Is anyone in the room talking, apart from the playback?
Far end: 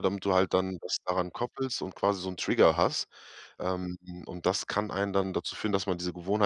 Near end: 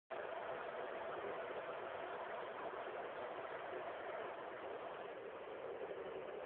No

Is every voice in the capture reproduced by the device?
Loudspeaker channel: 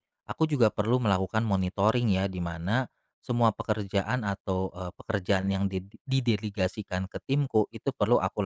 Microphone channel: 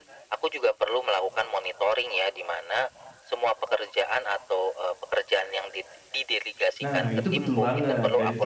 No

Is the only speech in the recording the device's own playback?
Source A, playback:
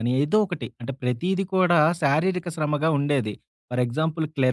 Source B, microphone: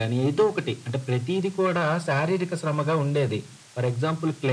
Yes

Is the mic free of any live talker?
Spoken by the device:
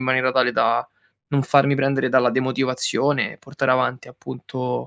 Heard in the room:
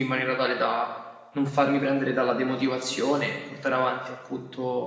Yes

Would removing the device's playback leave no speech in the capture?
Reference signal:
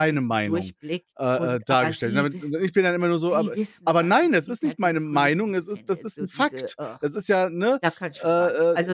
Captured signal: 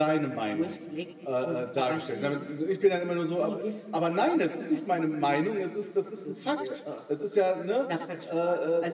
Yes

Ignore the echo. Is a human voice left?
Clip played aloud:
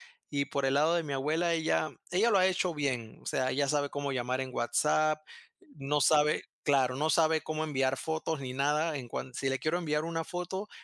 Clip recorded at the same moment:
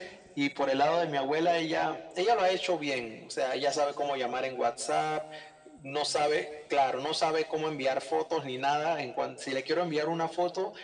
No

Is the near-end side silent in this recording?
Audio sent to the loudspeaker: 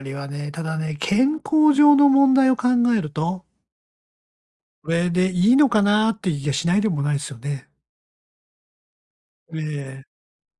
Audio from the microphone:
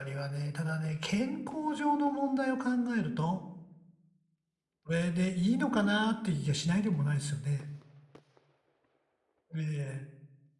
Yes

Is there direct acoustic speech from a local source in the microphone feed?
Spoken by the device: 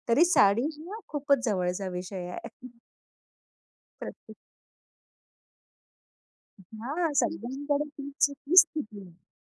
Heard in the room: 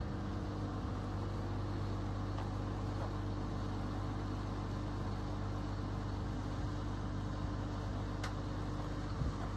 No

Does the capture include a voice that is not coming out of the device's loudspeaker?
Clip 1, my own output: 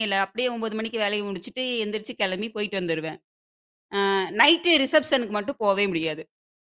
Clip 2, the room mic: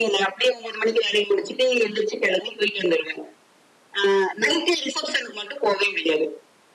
No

